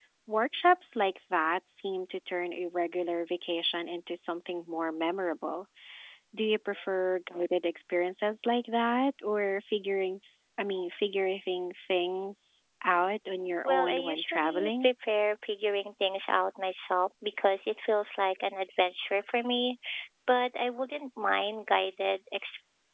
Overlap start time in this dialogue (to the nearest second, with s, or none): 14 s